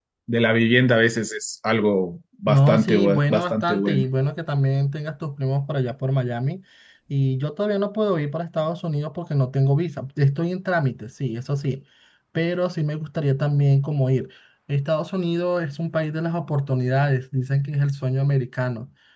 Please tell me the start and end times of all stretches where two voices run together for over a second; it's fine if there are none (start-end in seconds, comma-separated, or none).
2.5-4.0